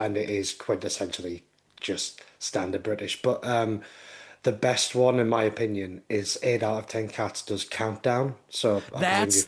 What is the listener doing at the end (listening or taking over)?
taking over